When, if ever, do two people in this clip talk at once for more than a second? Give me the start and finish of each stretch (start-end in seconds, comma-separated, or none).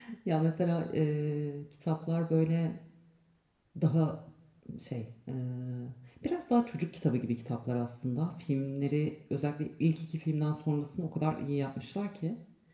none